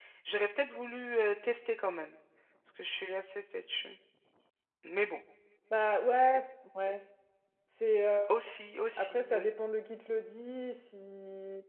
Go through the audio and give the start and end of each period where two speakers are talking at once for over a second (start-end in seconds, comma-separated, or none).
none